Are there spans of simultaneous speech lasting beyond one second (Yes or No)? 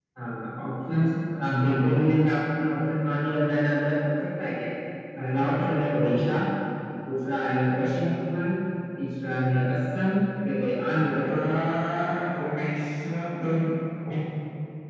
No